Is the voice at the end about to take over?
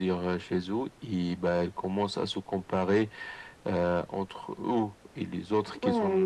Yes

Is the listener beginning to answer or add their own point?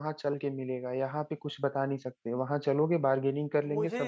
Yes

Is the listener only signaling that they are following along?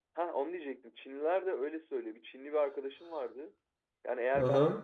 Yes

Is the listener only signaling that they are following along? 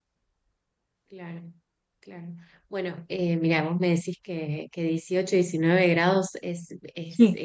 Yes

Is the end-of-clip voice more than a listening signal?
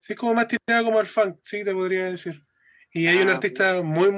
No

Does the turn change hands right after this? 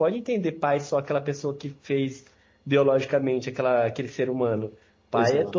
No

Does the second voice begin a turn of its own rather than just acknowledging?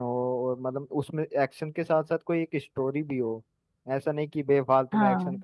No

